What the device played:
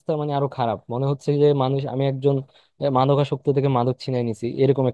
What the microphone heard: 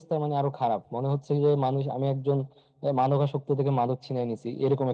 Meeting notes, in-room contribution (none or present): none